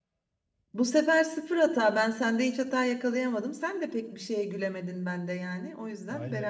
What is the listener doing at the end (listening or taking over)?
taking over